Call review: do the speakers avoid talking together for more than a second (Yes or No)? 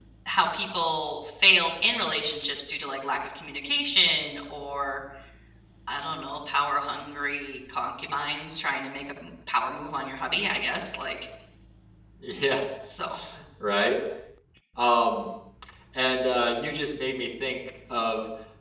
Yes